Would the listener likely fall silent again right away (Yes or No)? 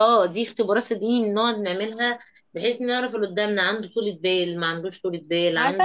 No